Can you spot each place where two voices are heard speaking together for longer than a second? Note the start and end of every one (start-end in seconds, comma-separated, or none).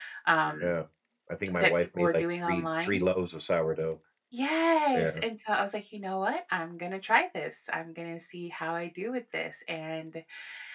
1.6-3.1